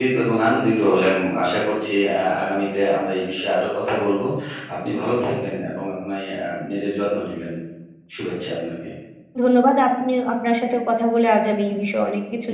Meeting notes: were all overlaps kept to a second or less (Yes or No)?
Yes